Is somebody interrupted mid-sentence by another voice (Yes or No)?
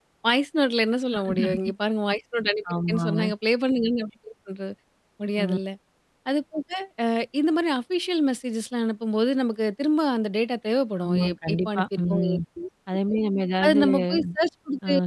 Yes